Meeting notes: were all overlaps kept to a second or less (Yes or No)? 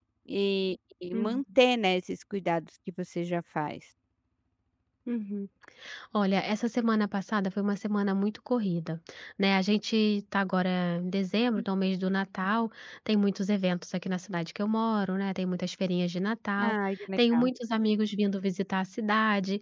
Yes